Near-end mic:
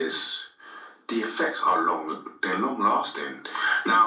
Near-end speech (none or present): none